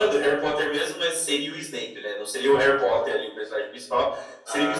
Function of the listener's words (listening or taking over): listening